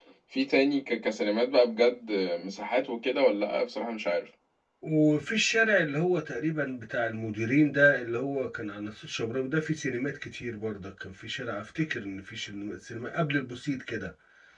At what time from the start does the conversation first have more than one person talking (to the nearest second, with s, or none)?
none